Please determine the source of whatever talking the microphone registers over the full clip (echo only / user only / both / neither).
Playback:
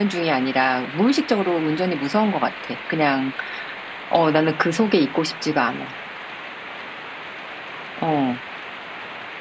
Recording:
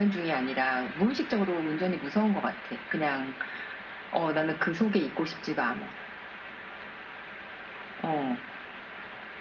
echo only